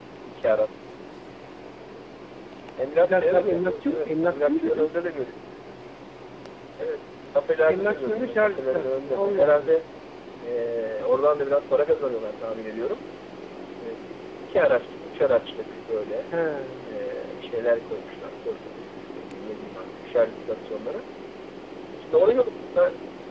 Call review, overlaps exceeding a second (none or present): present